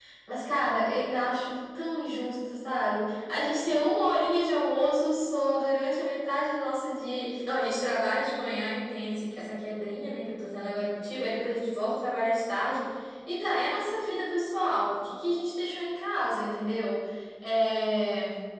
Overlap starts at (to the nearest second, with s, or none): none